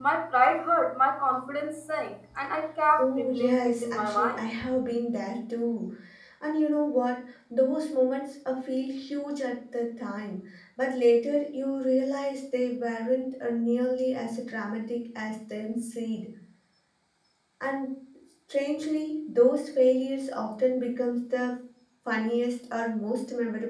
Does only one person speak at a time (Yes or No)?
No